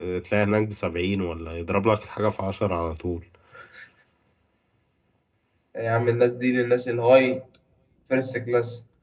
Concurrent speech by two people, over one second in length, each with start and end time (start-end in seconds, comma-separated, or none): none